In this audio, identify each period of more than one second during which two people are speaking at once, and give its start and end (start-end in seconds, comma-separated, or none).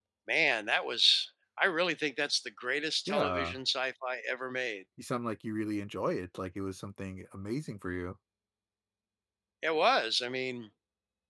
none